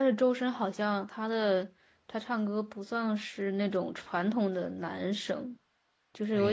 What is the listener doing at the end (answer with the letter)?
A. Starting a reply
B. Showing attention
A